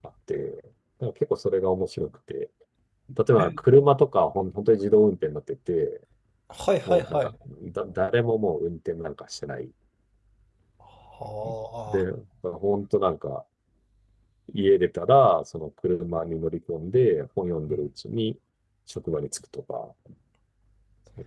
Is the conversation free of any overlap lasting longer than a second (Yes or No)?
Yes